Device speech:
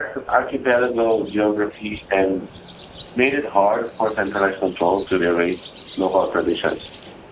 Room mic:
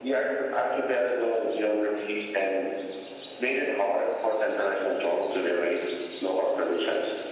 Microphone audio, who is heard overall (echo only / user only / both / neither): echo only